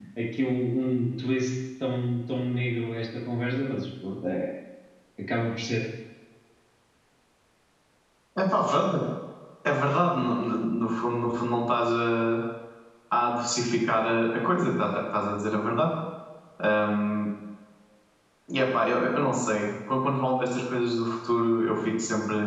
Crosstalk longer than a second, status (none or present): none